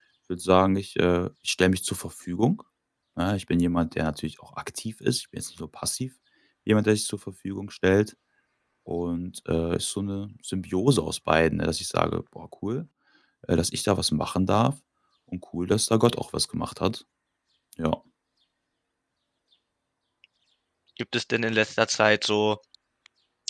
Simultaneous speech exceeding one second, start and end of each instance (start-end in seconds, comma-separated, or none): none